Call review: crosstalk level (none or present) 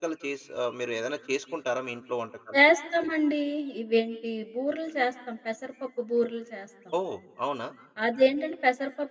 none